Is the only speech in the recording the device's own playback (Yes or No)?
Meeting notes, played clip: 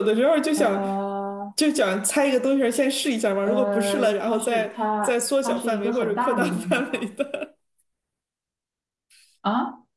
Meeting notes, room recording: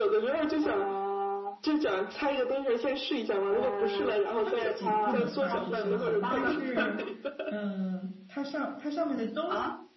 No